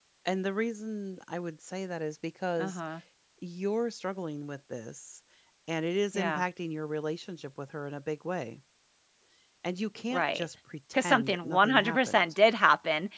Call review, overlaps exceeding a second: present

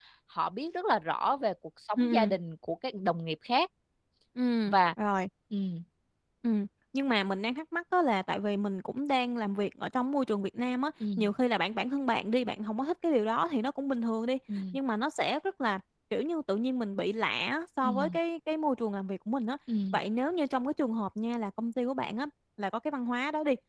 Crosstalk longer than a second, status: none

